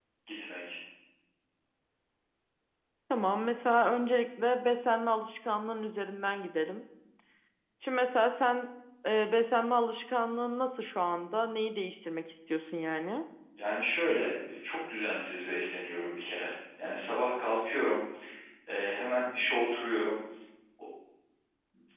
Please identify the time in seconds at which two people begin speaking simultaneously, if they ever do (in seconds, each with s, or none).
none